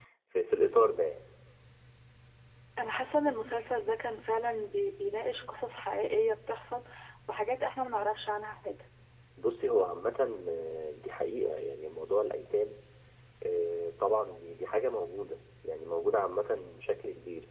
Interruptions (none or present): none